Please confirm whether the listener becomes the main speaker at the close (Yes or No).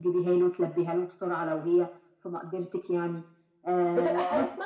Yes